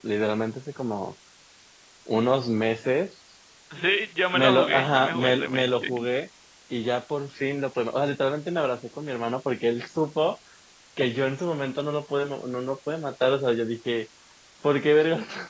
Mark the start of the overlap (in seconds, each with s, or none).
4.3 s